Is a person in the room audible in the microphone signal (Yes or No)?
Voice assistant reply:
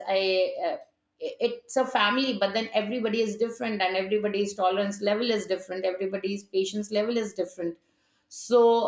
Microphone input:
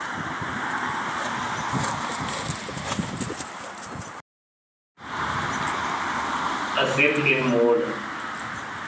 Yes